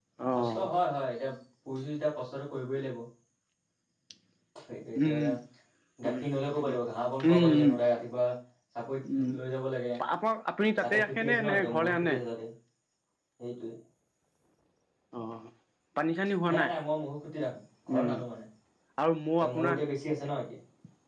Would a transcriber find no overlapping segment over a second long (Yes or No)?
No